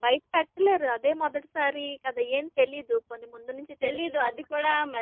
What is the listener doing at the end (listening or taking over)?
taking over